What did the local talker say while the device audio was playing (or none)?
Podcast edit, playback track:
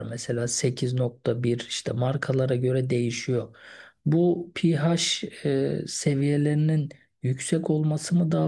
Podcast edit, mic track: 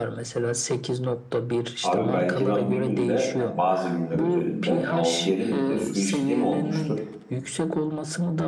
Abi belki ben bir günde yani bazı günler özelinde 6-7 litre su içtiğim olmuştur.